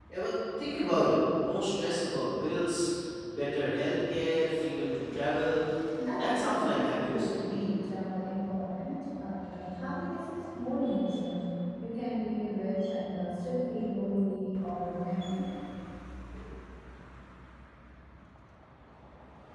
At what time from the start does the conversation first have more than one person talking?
6 s

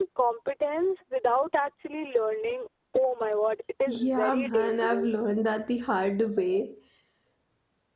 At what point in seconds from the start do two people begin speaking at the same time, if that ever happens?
4 s

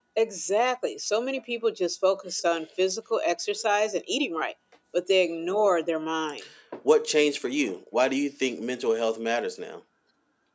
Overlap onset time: none

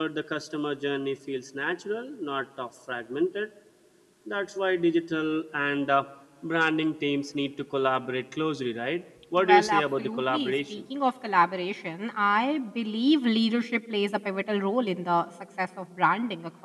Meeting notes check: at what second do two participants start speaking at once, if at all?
9 s

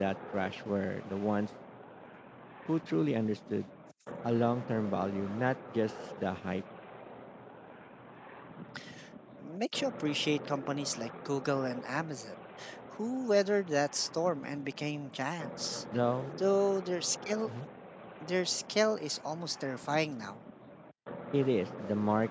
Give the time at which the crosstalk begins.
none

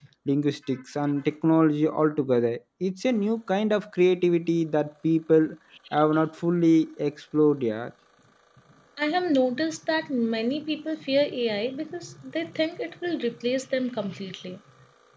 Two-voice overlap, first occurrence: none

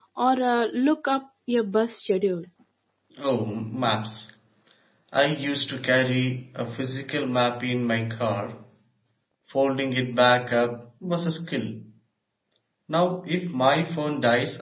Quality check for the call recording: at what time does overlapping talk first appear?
none

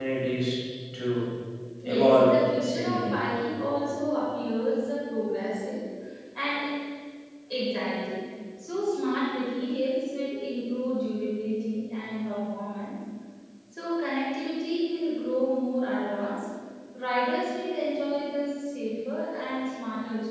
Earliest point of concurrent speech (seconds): 2 s

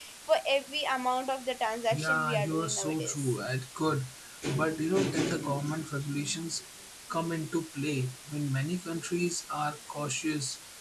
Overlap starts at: 2 s

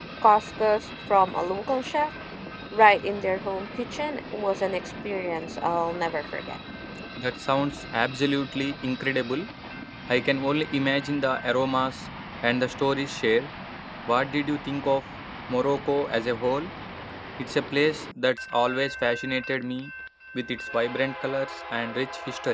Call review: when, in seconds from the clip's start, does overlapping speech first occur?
none

